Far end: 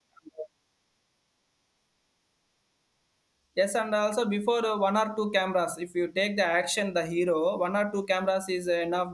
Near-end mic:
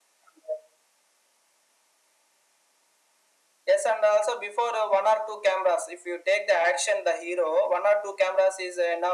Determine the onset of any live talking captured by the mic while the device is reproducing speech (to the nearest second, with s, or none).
none